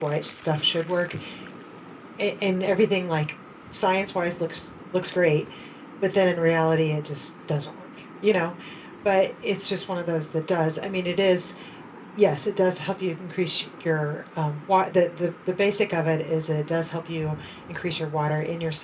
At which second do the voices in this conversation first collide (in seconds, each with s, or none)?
none